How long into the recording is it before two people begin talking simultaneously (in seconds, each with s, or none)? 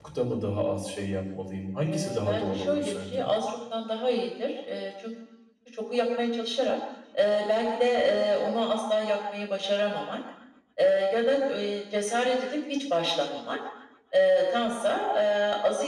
1.9 s